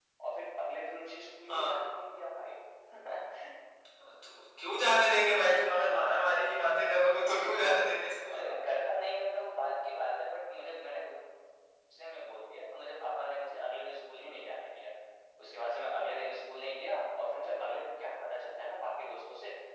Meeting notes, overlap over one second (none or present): none